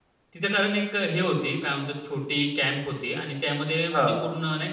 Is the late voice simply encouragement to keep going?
Yes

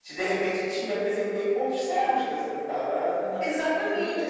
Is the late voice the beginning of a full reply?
Yes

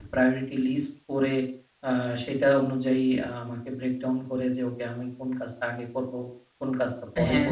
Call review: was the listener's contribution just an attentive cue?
Yes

